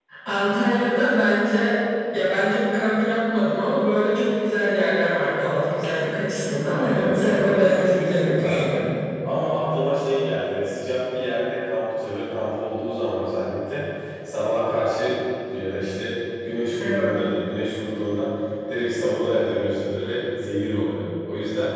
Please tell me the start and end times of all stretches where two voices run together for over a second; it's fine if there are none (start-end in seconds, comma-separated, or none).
6.7-8.9